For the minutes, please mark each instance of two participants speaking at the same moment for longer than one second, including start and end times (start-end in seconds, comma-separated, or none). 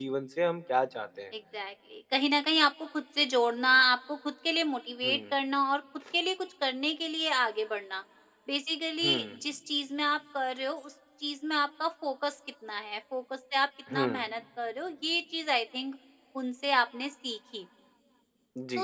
none